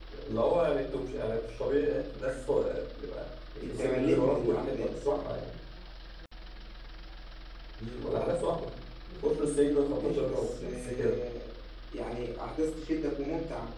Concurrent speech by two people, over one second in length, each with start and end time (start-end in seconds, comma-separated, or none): 3.6-5.2, 10.0-11.2